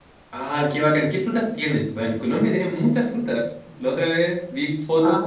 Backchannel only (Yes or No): Yes